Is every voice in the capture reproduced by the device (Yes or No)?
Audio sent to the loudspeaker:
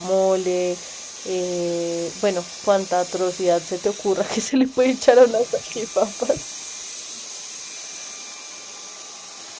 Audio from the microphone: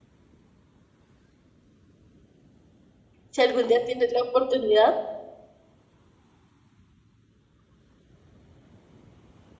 No